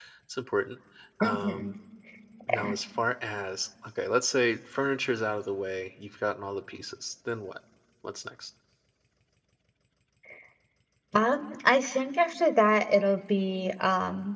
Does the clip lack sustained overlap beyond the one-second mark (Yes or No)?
Yes